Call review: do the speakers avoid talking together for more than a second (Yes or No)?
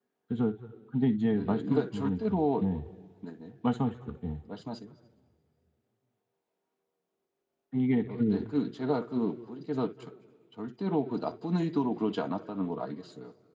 No